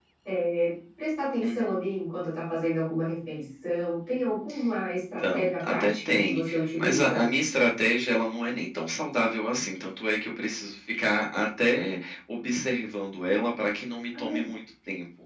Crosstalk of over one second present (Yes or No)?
Yes